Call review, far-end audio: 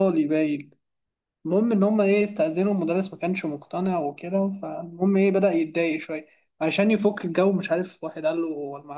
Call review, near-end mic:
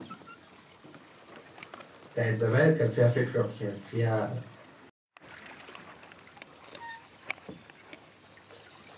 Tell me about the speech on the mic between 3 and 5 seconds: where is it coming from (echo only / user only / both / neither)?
user only